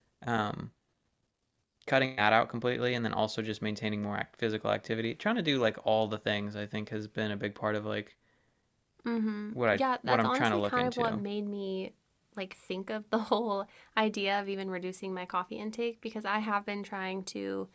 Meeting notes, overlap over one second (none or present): present